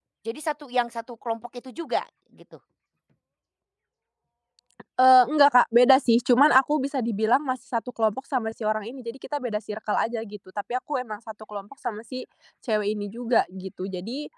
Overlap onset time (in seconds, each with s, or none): none